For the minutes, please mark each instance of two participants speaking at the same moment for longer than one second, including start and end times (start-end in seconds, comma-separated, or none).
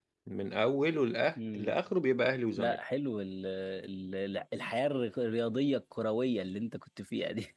none